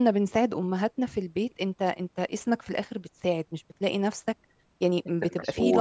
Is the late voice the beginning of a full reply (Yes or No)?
No